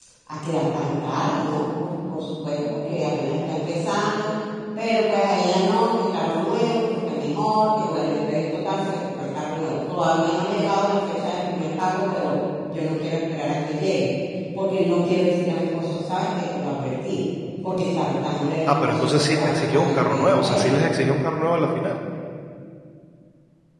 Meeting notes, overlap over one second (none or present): present